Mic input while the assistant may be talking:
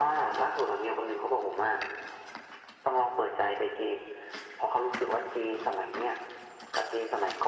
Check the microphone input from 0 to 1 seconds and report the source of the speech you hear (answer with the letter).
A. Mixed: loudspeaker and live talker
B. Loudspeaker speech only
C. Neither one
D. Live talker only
B